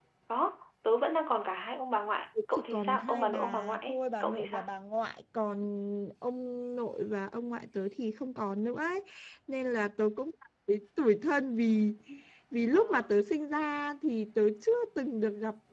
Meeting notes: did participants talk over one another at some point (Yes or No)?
Yes